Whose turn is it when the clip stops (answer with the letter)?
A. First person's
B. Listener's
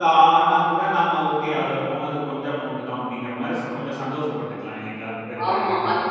B